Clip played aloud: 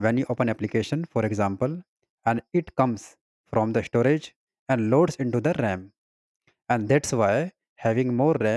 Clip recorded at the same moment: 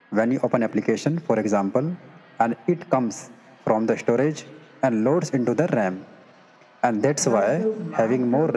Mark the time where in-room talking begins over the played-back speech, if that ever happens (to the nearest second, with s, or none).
7 s